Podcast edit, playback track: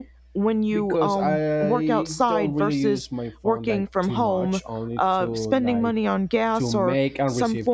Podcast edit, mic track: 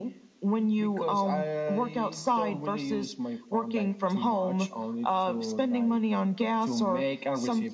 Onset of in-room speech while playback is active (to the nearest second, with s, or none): none